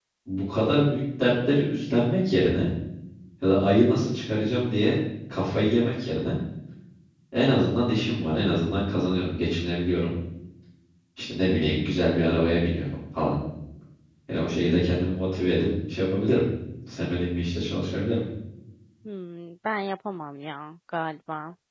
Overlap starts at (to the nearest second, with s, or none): none